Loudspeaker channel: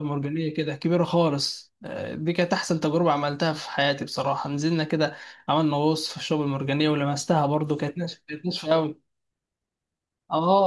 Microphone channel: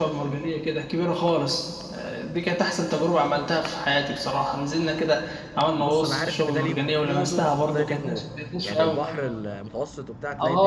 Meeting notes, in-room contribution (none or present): present